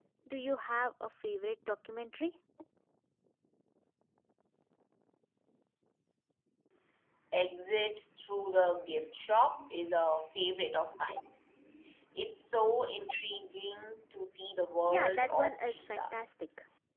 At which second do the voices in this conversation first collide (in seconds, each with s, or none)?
14.9 s